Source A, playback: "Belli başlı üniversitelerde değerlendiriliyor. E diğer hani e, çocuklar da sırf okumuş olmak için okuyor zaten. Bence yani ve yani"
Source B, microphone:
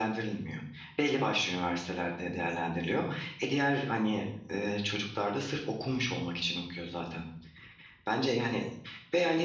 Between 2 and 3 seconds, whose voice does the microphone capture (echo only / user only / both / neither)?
echo only